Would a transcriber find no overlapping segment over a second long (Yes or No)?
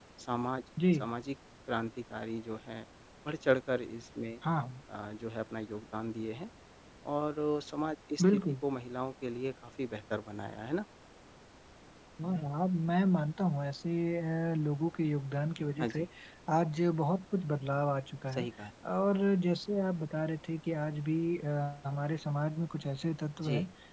Yes